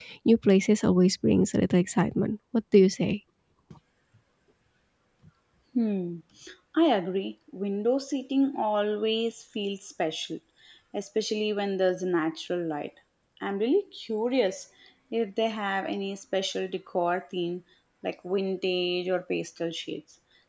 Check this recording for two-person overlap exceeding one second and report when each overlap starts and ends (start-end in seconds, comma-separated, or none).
none